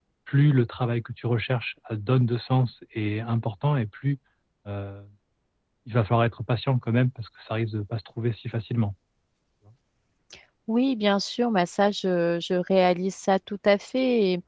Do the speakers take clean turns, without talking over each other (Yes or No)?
Yes